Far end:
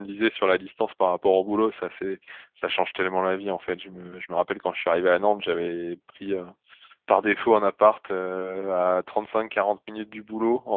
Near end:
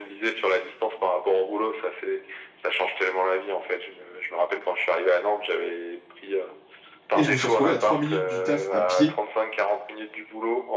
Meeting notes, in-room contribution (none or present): present